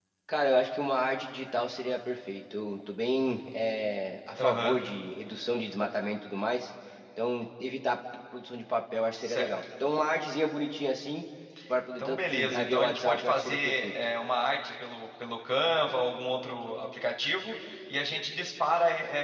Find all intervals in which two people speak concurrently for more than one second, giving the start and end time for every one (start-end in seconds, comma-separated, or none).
12.0-13.9